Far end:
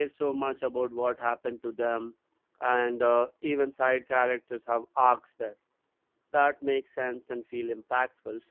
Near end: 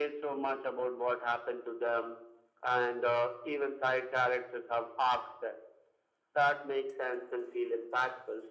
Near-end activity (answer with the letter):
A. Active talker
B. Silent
B